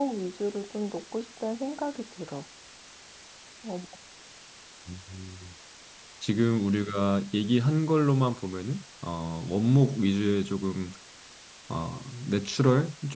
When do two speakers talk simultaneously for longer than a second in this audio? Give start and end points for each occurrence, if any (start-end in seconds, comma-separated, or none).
none